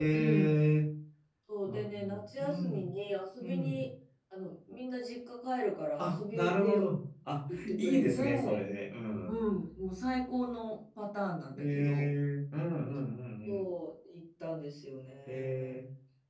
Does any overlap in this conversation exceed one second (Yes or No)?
Yes